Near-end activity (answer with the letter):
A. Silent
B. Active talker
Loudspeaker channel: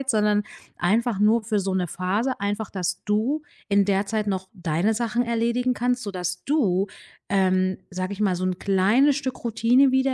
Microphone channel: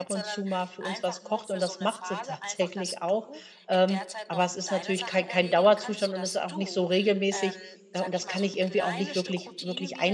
B